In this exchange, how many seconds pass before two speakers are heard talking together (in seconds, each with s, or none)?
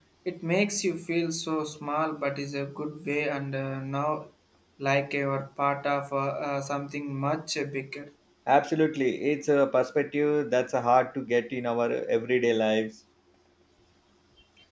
none